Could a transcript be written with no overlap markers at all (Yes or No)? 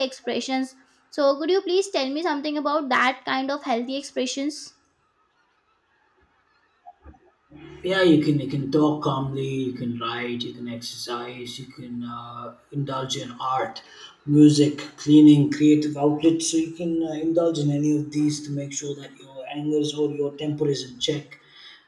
Yes